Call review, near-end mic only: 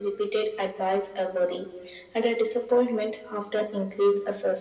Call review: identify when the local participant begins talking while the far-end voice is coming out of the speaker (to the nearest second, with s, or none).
none